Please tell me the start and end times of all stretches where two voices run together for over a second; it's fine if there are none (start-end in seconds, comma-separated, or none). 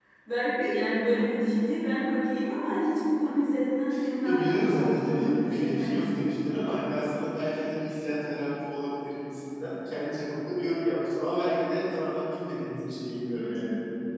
4.2-6.3